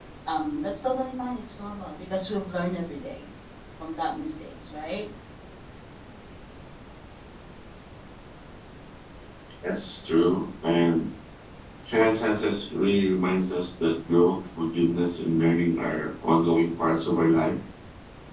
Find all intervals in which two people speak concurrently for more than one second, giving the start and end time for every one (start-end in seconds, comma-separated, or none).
none